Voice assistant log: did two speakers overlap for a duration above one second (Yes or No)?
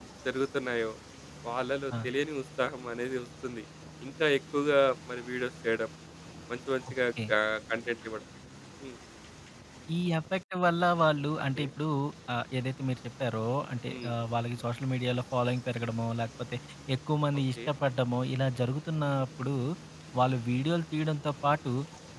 No